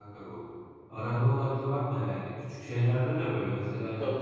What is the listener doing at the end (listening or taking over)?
listening